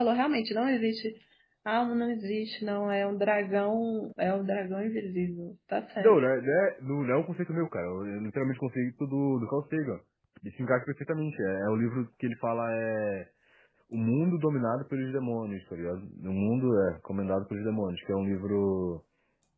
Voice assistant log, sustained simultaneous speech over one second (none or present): none